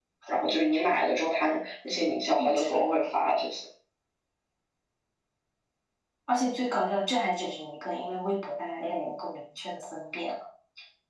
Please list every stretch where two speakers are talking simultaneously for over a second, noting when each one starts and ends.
none

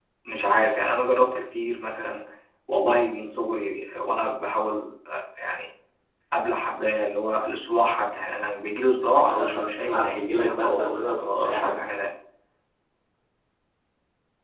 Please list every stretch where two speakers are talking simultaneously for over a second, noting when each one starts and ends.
9.2-11.8

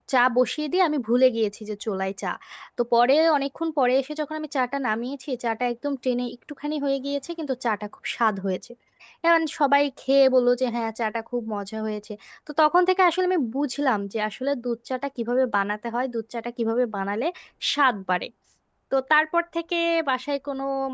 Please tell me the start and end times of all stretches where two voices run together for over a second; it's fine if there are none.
none

